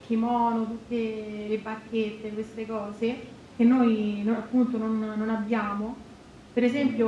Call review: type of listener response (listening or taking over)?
listening